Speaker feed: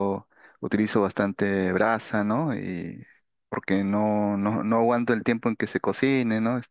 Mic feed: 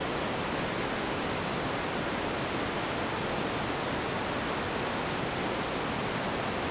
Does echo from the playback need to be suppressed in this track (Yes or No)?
No